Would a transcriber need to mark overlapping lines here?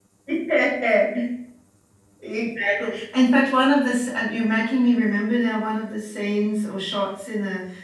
No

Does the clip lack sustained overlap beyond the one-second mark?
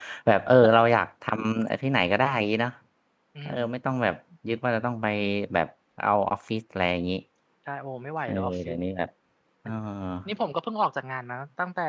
Yes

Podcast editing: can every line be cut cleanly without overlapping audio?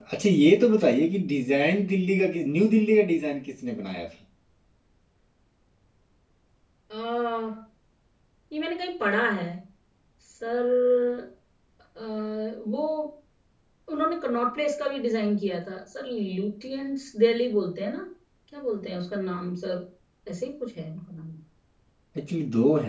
Yes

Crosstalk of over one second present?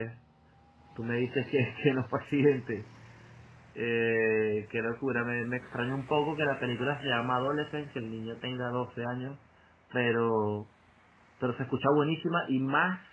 No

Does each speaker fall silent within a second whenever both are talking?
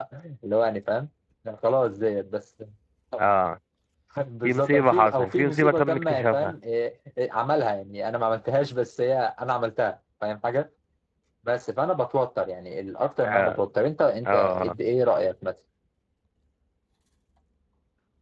No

